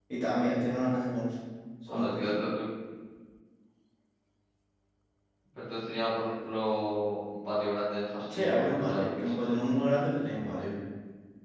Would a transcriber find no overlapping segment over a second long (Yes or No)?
No